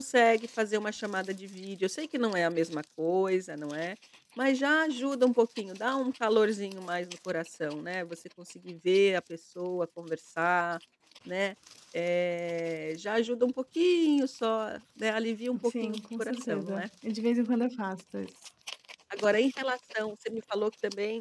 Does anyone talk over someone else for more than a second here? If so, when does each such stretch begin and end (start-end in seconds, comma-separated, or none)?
15.6-16.9